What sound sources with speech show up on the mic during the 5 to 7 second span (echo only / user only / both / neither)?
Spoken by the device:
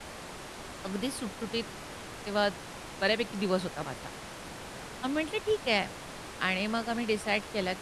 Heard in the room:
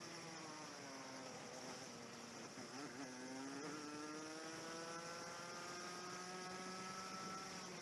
neither